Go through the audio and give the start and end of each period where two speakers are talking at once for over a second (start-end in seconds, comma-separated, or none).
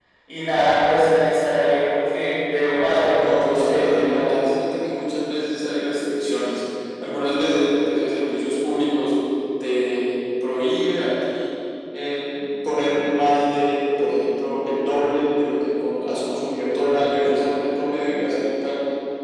2.9-4.3